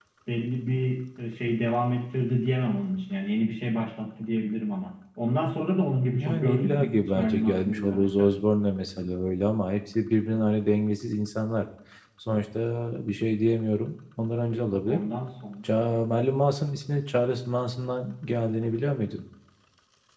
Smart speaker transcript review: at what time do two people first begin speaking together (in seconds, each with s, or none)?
6.2 s